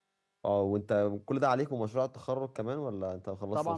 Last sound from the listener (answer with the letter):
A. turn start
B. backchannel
A